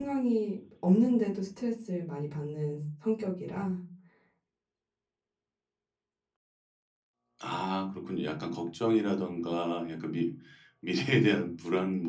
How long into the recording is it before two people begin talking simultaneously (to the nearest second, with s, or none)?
none